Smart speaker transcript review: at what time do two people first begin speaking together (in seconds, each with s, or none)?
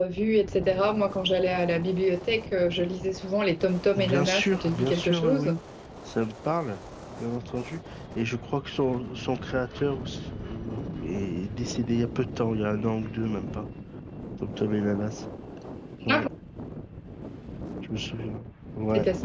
4.0 s